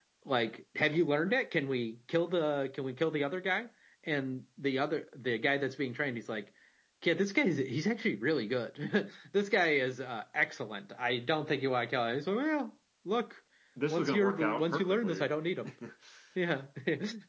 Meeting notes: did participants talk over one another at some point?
Yes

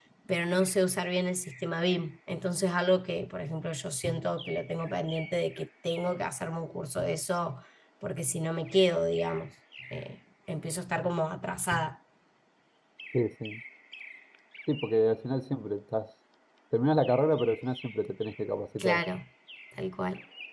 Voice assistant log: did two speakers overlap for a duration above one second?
No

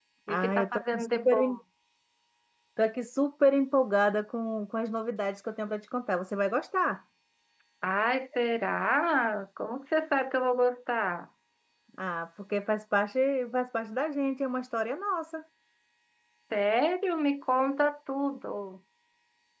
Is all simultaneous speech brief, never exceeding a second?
No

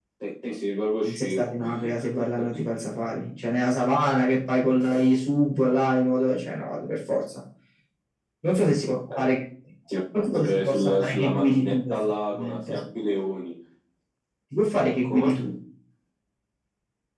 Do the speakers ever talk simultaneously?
Yes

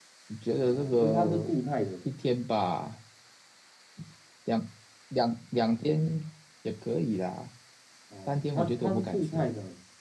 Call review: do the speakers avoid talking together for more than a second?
No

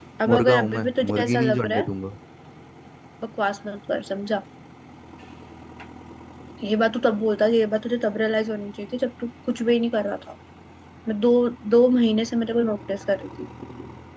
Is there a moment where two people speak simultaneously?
Yes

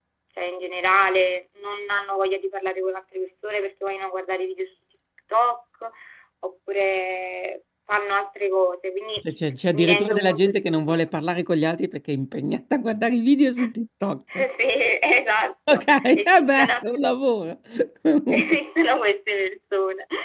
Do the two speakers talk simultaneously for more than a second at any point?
Yes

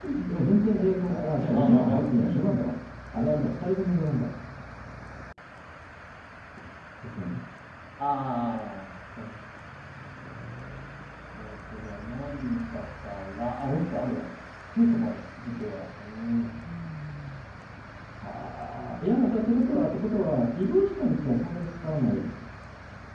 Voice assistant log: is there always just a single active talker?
No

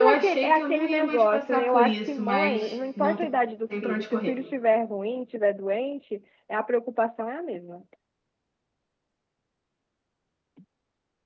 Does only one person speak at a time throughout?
No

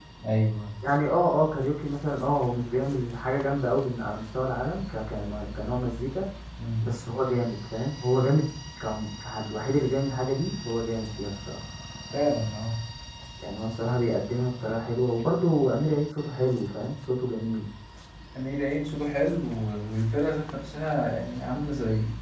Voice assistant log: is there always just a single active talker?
Yes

